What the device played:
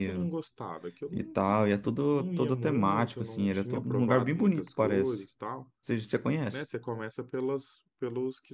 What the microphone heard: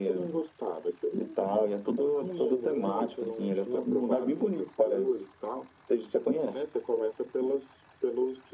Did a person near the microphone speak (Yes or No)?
No